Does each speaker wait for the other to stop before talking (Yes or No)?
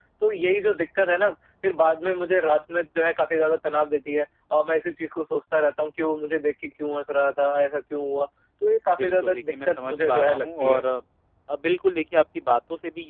No